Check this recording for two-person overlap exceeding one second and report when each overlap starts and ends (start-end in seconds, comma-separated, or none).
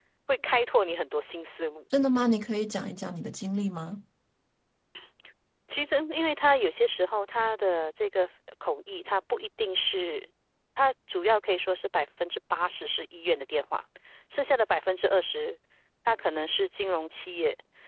none